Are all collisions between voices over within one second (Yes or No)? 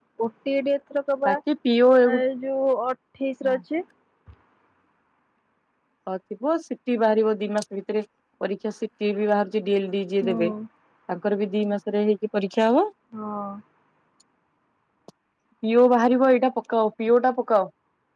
Yes